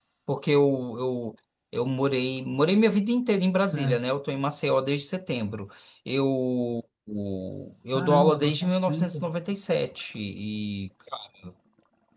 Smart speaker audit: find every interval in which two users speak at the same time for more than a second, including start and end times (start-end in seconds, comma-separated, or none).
8.0-9.3